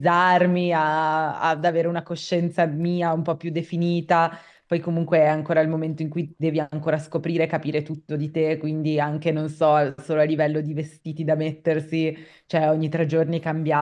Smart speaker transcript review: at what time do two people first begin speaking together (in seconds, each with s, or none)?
none